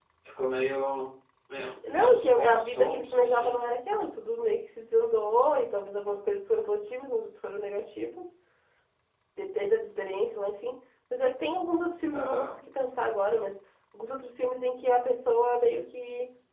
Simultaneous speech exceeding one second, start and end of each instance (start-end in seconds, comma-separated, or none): 1.9-3.6